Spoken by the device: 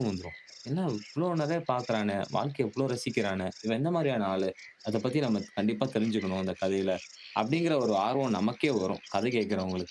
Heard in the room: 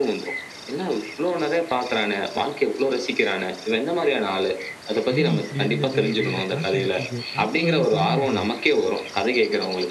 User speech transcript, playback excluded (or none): முடி இப்படி இருந்தது, இந்த காத்து அடிச்சது. காத்துக்கும் அதுக்கும் சம்மந்தம் கிடையாது.